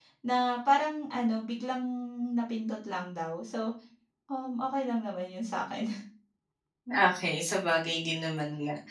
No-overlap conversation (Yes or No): Yes